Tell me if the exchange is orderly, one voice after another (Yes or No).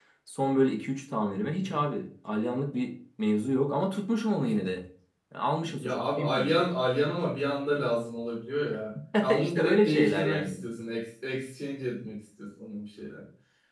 No